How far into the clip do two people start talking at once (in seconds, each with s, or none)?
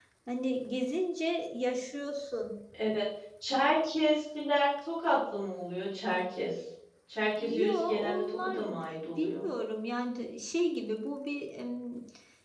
7.4 s